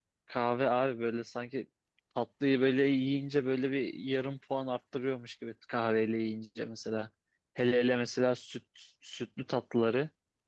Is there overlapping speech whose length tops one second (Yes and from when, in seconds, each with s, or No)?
No